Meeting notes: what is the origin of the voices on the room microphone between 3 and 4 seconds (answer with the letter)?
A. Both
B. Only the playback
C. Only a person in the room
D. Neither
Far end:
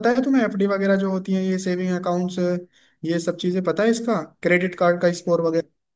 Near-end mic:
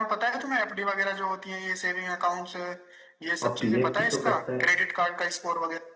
A